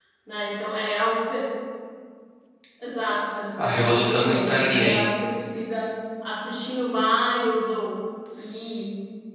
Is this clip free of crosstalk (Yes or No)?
No